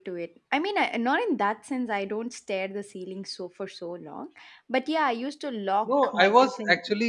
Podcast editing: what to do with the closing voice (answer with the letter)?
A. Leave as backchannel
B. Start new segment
B